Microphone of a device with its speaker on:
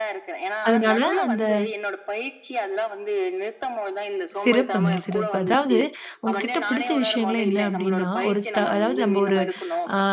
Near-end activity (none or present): present